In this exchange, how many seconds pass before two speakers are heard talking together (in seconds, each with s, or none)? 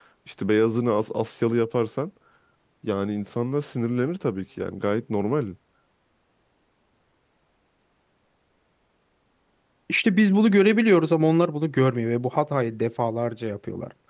none